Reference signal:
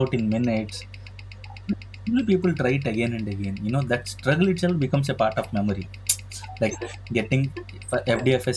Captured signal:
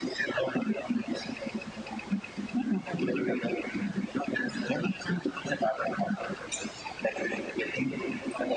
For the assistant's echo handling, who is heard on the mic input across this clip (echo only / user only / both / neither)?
echo only